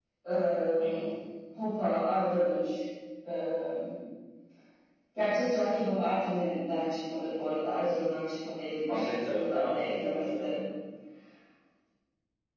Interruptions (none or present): present